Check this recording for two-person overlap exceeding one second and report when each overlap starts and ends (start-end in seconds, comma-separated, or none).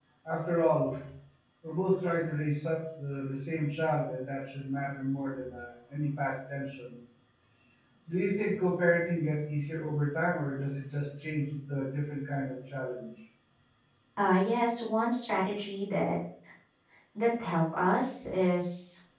none